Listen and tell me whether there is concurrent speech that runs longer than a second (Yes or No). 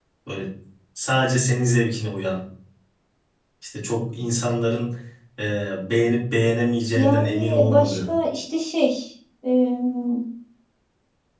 Yes